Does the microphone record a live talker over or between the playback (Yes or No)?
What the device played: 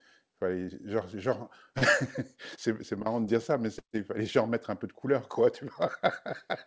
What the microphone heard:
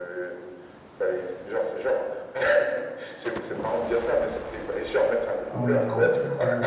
Yes